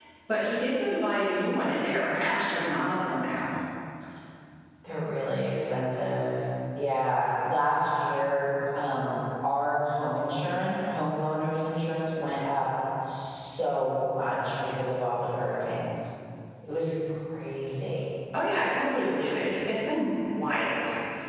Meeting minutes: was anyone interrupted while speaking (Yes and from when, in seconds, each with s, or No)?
No